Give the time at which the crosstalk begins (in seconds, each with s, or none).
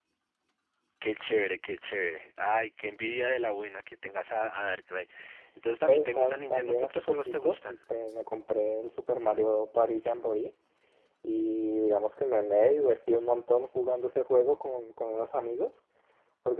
5.9 s